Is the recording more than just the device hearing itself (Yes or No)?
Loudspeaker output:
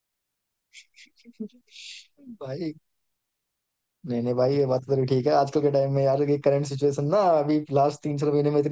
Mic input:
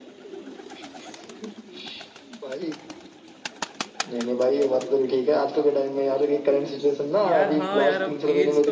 Yes